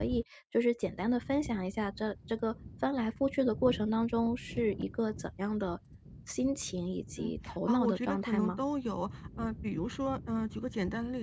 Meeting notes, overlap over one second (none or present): present